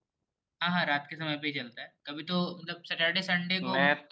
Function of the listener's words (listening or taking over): listening